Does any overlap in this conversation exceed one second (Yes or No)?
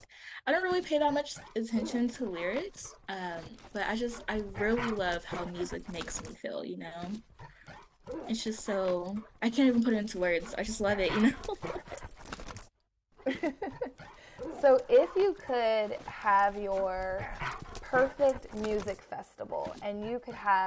No